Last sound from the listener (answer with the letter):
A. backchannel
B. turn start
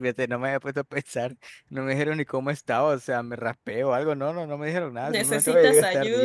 B